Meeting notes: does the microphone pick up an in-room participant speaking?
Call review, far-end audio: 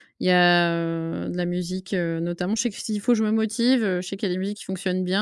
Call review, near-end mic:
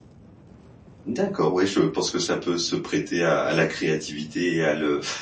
Yes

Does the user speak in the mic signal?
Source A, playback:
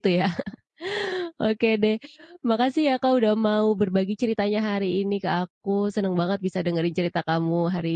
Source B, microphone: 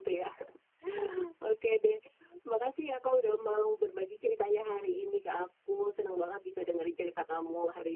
No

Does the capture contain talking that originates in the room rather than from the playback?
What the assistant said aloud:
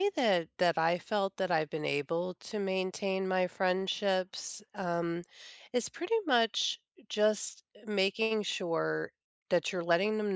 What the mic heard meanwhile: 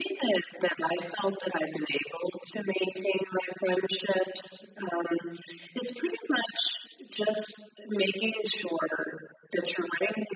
No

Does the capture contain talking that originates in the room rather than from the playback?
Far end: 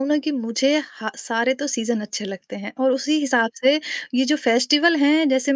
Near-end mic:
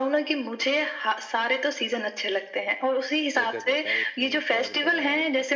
Yes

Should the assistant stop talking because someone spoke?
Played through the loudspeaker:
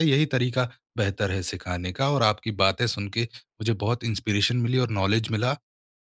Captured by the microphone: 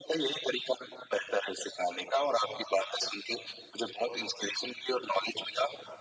No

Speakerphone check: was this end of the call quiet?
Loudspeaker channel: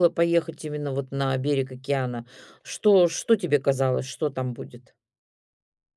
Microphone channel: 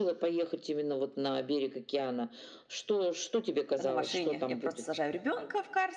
No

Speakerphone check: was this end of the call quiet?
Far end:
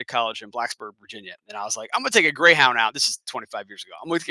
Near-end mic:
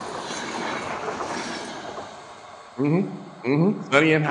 No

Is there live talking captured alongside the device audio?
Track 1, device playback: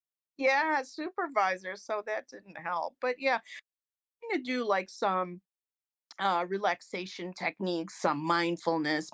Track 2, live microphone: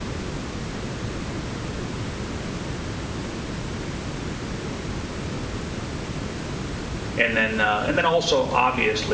Yes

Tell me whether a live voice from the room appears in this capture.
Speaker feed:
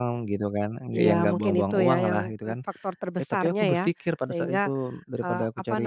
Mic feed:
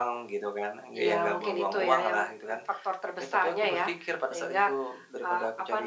No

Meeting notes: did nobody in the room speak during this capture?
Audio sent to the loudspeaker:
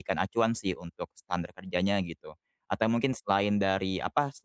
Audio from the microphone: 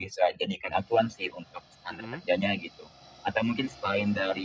No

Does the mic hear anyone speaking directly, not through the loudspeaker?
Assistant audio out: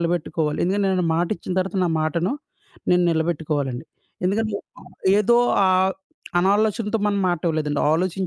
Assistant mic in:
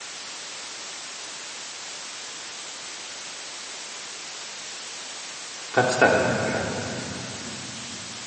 Yes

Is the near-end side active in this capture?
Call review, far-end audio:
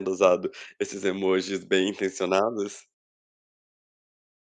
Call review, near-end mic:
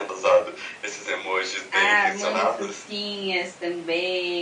Yes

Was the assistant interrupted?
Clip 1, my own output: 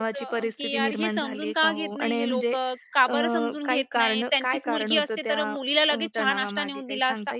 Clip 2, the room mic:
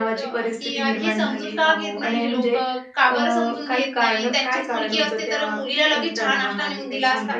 No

